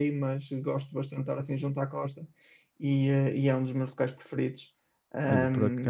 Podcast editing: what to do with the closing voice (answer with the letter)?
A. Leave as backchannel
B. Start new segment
B